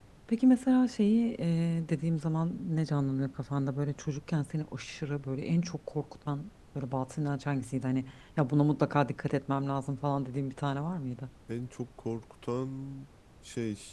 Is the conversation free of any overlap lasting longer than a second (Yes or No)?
Yes